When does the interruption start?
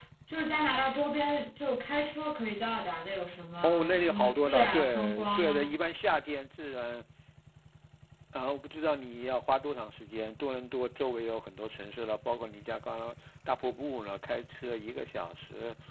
4 s

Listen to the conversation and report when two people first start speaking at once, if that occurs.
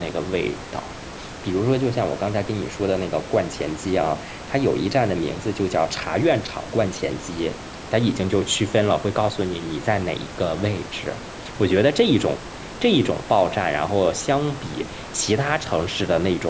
none

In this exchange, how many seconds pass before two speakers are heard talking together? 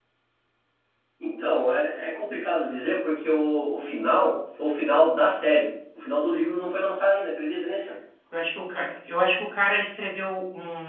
none

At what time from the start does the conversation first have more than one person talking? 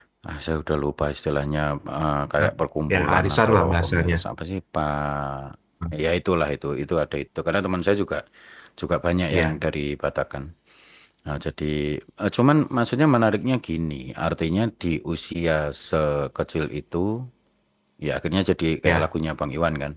3 s

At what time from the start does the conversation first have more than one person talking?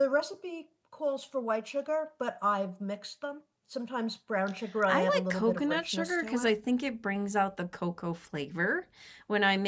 5 s

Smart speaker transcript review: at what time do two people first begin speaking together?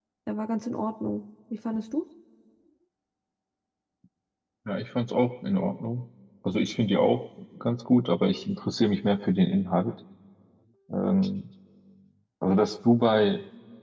none

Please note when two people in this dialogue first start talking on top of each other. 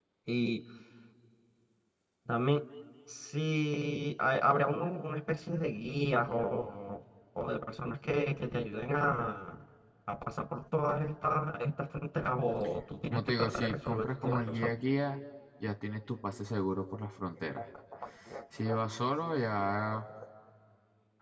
13 s

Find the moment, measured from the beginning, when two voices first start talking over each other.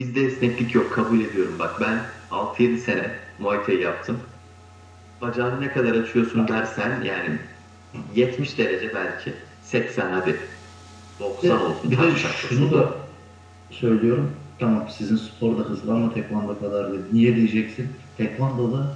11 s

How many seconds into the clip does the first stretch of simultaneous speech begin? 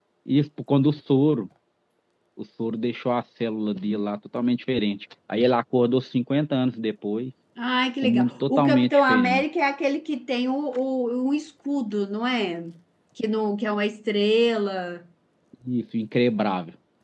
8 s

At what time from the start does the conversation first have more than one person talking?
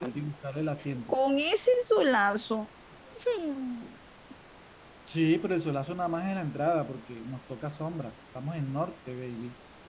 none

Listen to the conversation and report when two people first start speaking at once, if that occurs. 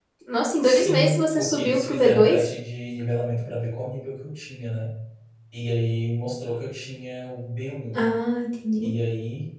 1 s

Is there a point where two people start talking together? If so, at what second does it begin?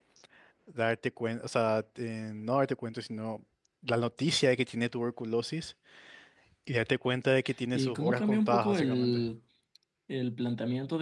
8 s

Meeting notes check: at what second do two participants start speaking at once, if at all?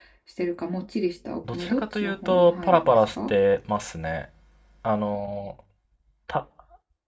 1 s

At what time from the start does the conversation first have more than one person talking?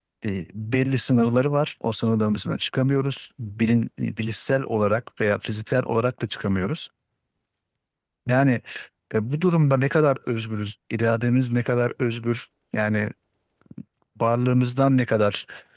none

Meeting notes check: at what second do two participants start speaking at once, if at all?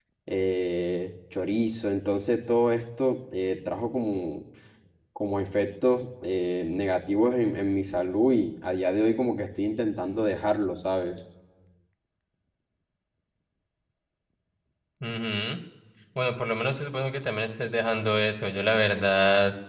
none

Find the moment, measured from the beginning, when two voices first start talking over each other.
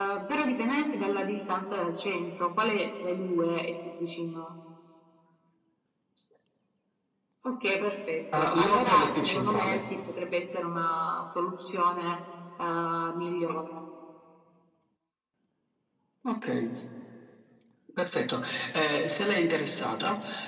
8 s

